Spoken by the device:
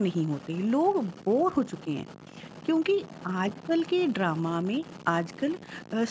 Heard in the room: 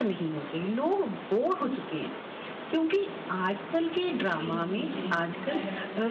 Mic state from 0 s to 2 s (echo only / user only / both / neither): echo only